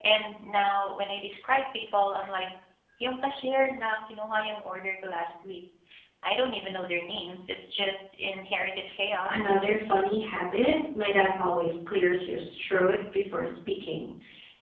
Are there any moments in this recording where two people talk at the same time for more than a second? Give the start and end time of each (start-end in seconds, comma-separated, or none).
none